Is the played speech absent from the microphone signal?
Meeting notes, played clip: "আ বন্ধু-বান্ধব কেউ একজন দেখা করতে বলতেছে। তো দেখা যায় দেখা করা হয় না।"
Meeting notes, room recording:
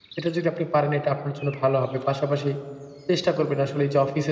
Yes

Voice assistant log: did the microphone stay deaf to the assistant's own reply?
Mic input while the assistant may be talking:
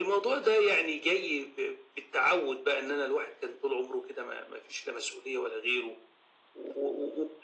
No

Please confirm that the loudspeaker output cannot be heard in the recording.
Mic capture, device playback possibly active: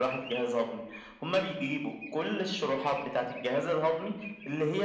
No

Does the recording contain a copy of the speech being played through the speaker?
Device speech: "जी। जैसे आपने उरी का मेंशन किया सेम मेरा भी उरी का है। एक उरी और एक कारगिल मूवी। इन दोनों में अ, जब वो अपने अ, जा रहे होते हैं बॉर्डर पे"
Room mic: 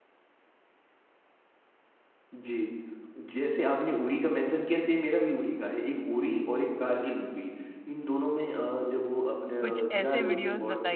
Yes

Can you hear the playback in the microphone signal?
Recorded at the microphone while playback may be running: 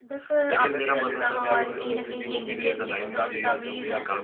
Yes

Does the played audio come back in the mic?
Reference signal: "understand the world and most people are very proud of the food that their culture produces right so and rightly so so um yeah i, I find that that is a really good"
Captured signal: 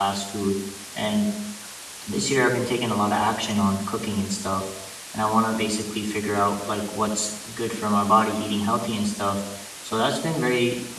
No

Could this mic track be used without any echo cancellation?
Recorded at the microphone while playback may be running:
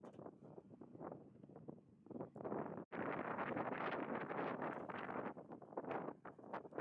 Yes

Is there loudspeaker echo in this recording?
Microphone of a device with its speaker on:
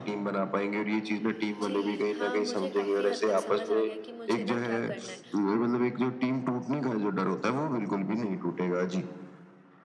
Yes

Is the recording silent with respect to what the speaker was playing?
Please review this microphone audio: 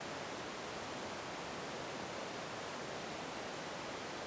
Yes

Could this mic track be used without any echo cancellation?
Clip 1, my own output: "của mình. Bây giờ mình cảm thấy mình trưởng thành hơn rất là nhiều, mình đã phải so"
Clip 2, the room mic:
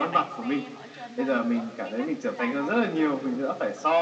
No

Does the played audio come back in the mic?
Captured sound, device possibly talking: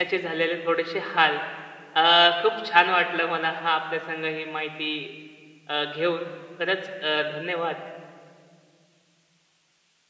No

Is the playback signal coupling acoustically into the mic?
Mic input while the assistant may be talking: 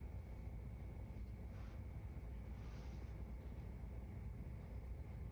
No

